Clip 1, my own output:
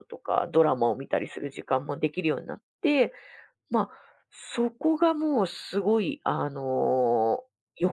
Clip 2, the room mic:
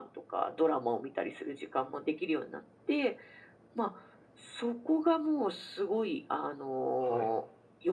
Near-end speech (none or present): present